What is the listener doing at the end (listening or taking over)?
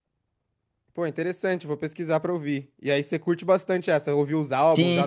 taking over